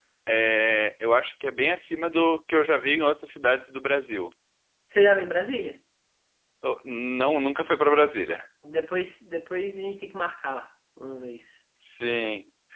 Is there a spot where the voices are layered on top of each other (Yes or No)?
No